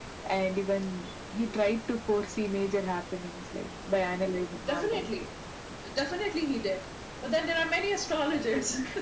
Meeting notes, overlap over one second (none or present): none